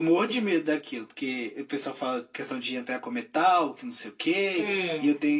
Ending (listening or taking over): listening